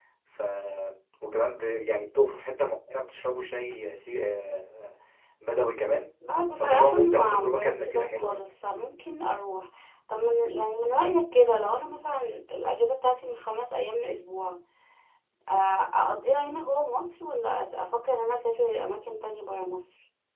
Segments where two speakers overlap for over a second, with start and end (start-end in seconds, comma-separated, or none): 6.6-8.4